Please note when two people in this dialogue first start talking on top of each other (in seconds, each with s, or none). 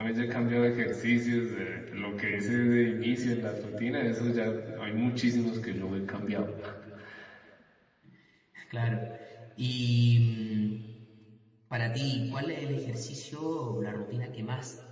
none